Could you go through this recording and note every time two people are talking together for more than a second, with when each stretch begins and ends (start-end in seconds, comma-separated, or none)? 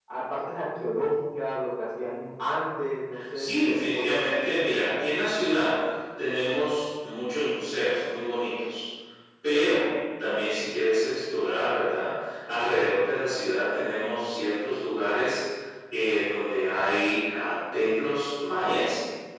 3.4-4.6